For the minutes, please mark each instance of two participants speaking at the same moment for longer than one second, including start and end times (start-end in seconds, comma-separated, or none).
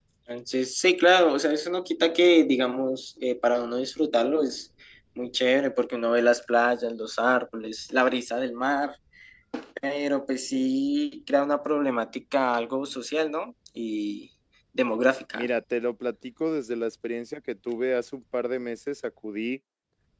none